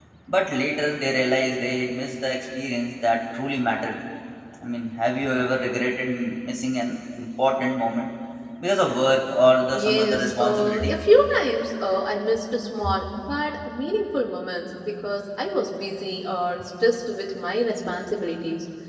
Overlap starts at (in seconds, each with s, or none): 9.7 s